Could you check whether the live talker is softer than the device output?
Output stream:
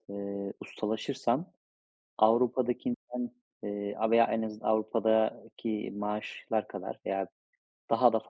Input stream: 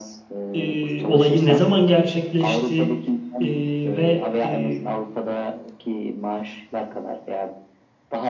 No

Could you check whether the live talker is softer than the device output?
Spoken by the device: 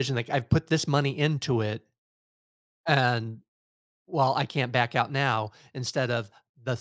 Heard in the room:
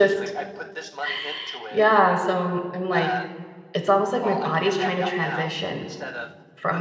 No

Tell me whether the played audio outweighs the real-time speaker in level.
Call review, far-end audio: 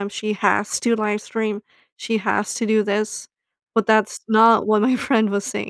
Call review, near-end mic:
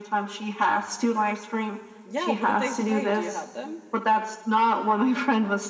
Yes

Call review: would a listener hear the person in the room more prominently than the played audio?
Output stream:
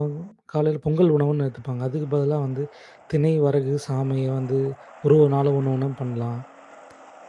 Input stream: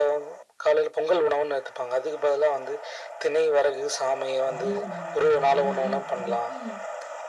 No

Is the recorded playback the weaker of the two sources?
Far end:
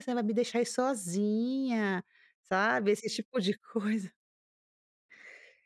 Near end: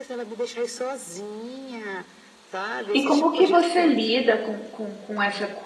Yes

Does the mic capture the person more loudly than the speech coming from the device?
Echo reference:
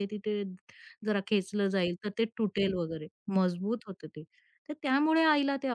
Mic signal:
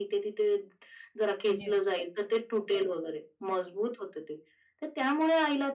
No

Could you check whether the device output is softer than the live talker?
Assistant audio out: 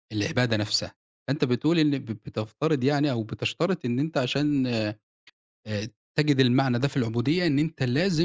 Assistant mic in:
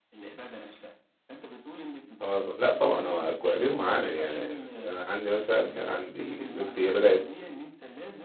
Yes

